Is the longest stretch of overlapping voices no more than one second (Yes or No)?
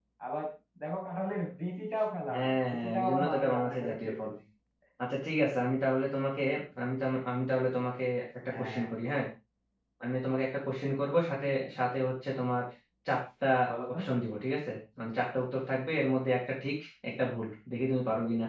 No